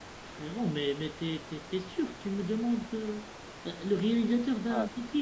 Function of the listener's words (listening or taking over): taking over